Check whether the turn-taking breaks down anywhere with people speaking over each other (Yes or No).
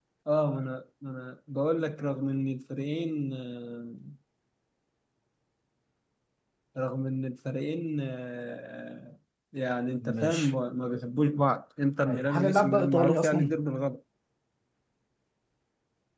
Yes